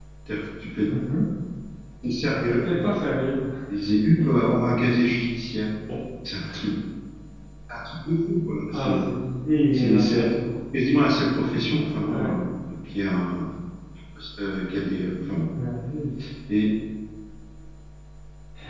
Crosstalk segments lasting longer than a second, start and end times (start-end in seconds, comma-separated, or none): none